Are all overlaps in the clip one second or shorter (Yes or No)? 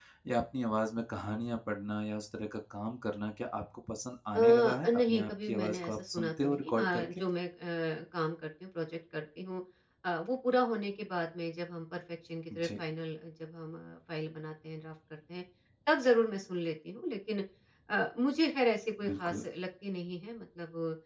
No